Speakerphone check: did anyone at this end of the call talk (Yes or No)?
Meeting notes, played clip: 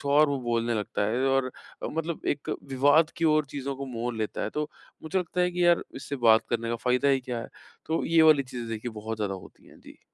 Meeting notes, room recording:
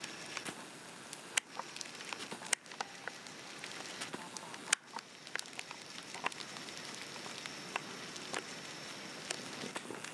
No